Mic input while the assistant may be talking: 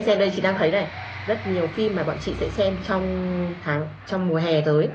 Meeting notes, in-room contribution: none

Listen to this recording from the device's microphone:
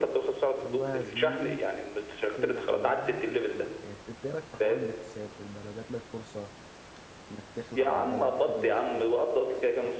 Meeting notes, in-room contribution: present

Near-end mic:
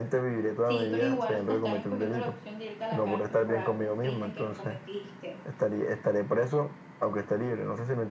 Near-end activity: present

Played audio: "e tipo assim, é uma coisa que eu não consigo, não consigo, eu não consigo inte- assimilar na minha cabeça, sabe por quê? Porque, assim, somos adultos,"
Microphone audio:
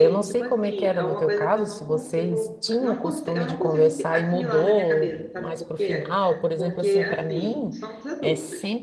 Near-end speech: present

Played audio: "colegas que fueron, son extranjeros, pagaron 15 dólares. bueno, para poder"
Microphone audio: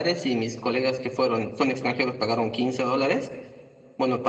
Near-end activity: none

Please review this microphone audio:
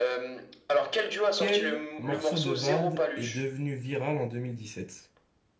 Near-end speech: present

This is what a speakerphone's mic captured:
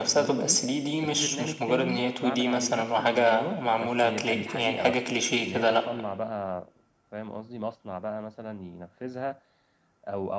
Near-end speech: present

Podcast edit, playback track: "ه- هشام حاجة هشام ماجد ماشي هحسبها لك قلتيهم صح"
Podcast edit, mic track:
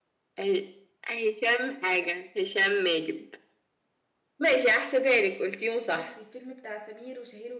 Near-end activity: present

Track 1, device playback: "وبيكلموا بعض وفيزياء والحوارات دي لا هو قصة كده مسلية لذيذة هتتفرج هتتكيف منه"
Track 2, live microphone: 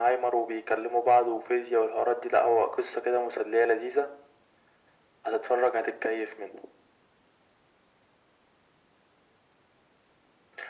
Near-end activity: none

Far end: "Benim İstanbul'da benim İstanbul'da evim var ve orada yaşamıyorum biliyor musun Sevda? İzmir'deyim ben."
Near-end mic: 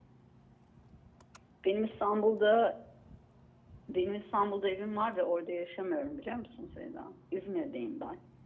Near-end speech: none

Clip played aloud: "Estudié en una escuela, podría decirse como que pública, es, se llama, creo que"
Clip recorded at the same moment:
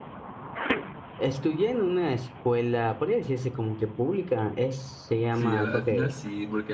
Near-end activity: present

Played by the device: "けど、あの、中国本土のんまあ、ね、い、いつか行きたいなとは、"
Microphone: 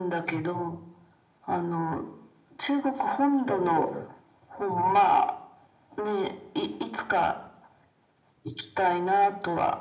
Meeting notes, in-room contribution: present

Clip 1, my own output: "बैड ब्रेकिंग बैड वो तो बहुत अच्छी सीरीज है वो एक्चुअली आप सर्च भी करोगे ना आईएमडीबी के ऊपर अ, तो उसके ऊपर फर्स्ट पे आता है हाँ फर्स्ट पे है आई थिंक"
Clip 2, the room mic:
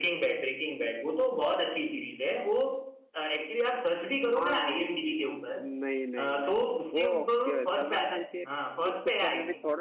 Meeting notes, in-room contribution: present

